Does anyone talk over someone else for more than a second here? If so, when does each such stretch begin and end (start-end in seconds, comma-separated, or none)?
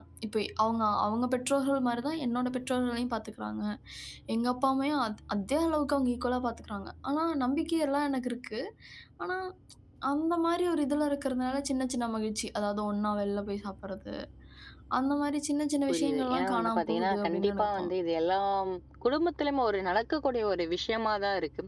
15.9-17.9